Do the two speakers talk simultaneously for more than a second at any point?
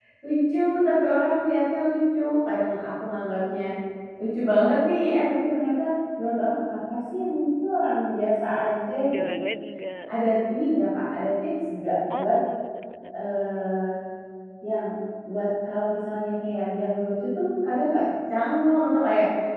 No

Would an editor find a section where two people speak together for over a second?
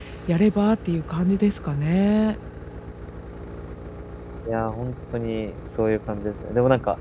No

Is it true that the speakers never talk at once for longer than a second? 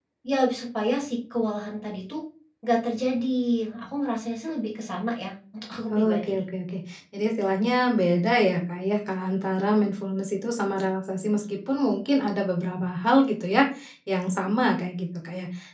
Yes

